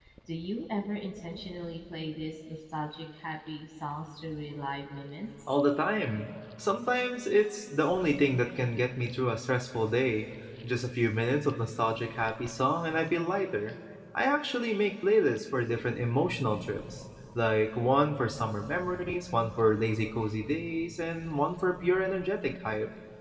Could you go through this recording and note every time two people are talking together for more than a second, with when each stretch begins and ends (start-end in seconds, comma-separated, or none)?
none